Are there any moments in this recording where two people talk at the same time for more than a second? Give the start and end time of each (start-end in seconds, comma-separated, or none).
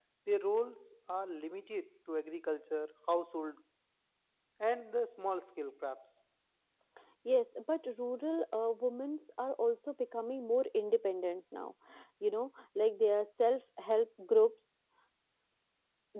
none